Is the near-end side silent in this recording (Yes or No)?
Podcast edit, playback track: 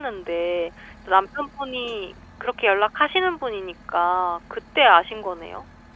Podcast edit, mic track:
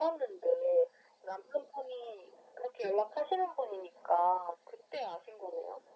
Yes